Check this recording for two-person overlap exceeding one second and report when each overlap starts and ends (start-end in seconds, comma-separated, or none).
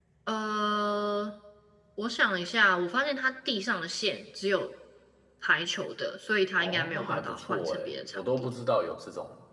6.6-8.5